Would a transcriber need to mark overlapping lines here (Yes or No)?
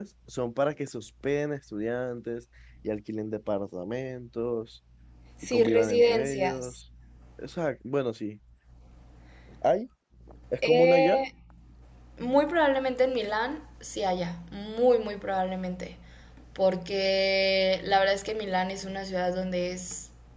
Yes